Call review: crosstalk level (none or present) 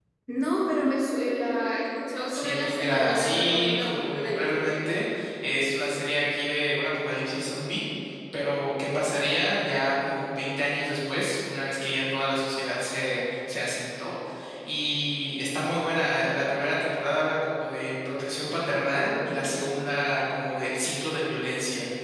present